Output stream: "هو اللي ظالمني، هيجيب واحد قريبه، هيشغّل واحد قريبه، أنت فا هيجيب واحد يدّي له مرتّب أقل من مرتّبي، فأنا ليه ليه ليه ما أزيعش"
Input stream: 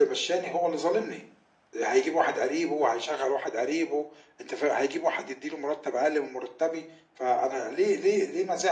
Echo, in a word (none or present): present